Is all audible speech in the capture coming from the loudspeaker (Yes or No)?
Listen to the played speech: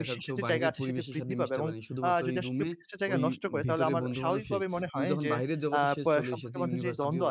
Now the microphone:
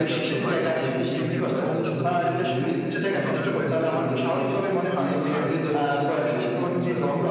No